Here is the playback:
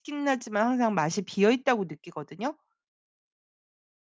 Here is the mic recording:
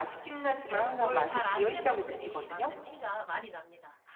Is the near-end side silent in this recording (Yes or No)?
No